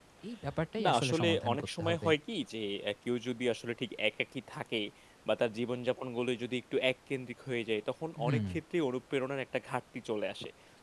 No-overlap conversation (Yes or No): No